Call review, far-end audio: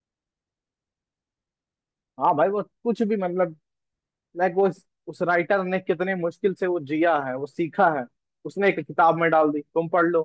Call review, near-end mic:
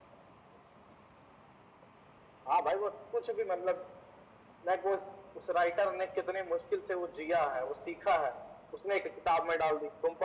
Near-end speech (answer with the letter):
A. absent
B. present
A